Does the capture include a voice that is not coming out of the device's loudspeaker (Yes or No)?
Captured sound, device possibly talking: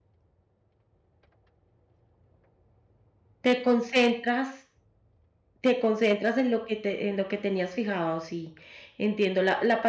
Yes